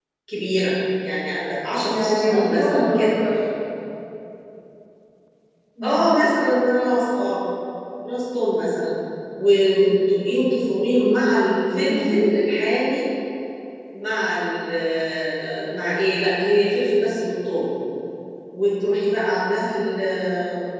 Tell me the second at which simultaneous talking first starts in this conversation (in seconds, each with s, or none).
1.9 s